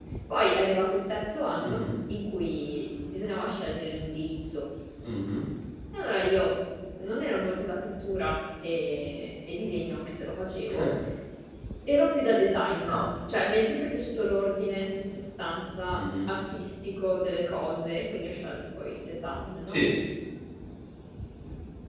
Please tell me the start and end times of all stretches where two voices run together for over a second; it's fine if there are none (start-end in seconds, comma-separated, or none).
none